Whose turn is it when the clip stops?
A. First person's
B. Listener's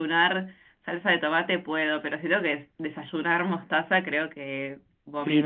B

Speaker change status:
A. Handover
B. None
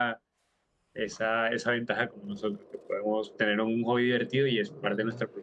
A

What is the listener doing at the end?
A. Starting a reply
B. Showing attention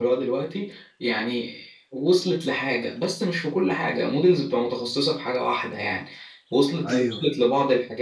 B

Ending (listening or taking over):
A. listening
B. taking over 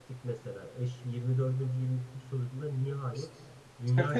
A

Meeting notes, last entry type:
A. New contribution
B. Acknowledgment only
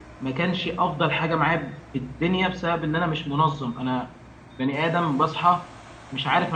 B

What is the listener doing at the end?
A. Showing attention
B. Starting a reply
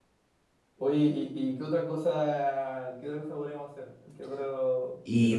B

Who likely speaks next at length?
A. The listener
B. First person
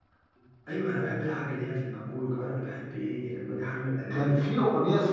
A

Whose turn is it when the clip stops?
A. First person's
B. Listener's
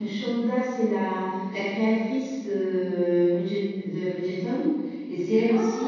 A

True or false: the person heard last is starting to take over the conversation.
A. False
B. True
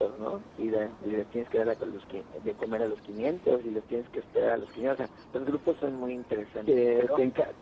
B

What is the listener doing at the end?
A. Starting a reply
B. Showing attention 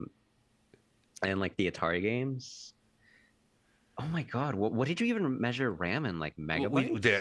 A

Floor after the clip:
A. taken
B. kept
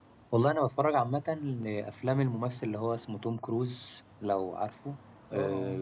B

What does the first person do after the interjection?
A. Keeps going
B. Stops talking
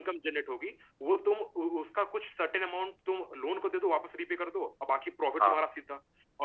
A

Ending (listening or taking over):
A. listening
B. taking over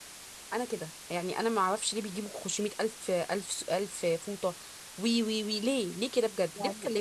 B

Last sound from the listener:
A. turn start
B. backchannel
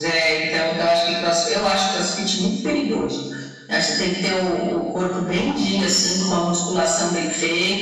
B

